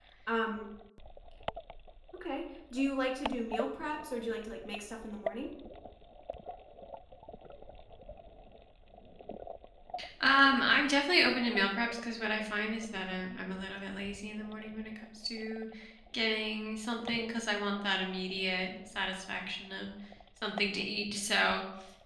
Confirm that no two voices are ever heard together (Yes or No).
Yes